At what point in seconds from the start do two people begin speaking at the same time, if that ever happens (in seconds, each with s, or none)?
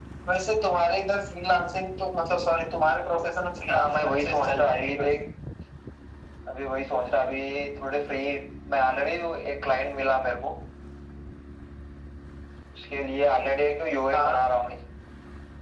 3.7 s